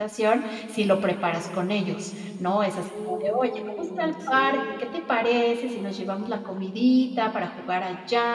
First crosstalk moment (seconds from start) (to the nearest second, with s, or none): 3 s